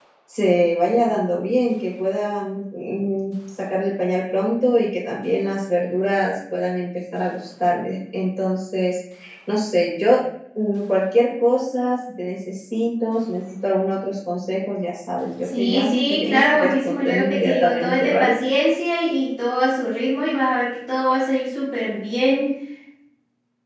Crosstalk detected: Yes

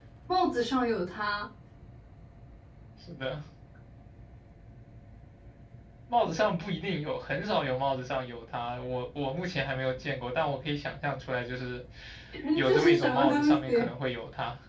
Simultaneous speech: Yes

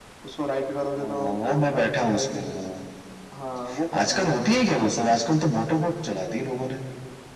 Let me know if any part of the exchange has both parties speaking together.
Yes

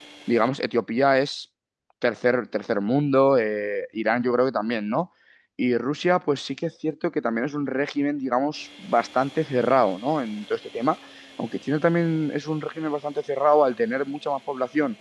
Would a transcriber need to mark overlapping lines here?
No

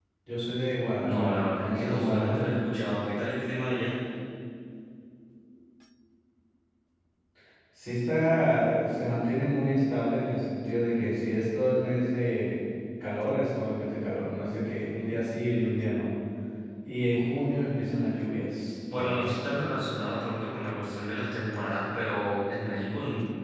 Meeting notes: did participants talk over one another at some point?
Yes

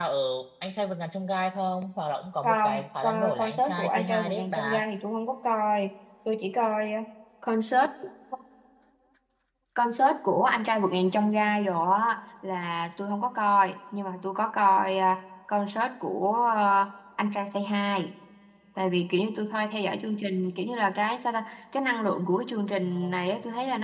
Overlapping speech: Yes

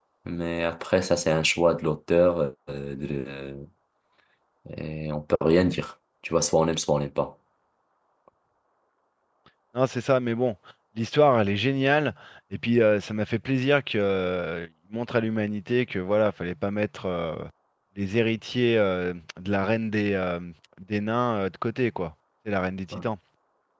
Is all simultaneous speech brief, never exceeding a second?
Yes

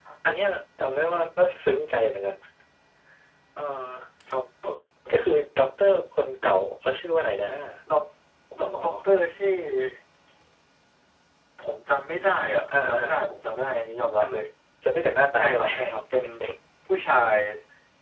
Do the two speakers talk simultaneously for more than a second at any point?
No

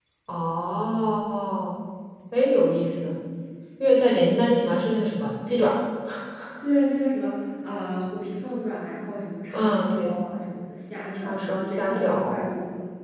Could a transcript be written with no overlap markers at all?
No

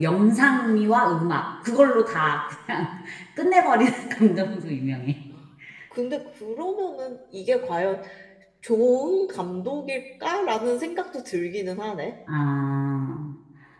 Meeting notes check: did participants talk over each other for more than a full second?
No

